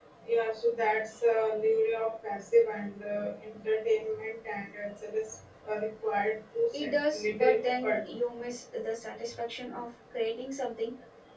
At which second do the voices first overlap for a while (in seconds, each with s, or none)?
6.7 s